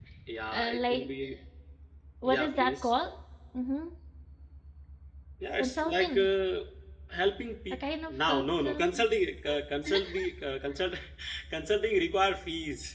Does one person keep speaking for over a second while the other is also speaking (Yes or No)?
Yes